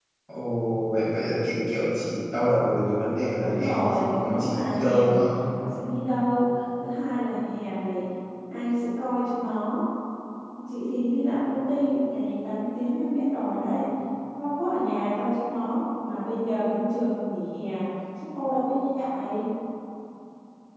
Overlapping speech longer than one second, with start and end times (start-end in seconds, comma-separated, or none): 3.4-5.2